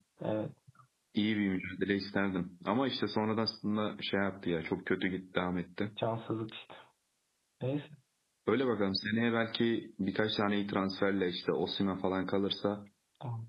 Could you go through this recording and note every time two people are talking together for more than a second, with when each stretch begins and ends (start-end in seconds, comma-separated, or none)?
none